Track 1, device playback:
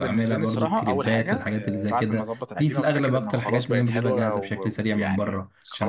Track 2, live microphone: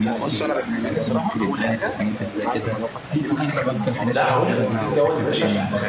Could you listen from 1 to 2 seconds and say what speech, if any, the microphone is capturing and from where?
echo only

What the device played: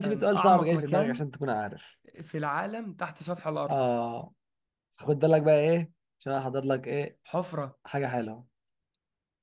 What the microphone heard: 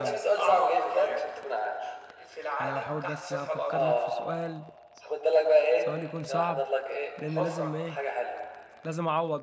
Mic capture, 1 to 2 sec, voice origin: echo only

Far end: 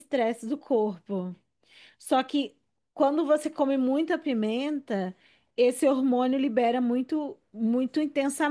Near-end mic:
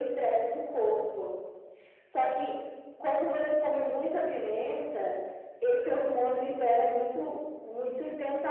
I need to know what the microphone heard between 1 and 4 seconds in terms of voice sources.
echo only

